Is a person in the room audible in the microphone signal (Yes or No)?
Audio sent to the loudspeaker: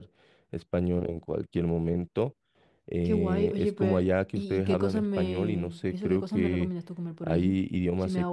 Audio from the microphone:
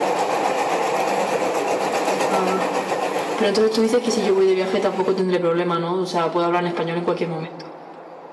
Yes